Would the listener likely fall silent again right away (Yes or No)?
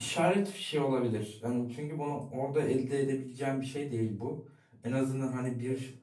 Yes